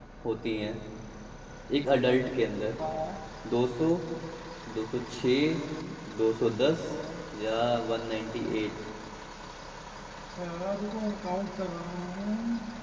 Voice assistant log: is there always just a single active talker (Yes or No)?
Yes